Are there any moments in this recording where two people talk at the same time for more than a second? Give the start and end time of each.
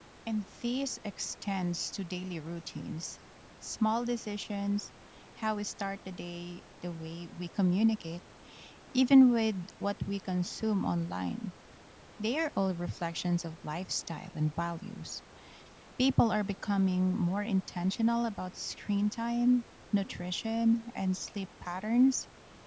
none

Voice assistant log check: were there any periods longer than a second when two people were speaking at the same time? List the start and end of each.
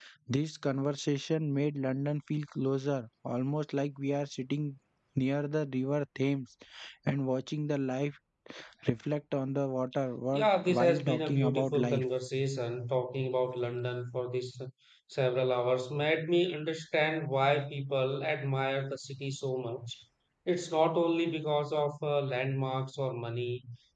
10.4-12.0

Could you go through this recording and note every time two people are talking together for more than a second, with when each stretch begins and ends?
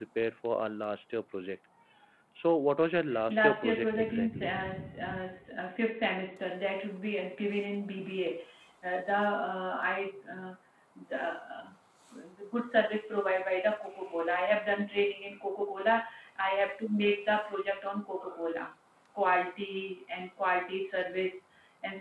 3.3-4.5

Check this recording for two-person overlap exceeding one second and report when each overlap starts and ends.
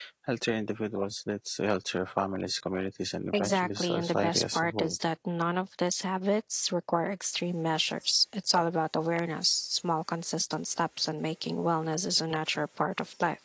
3.3-5.0

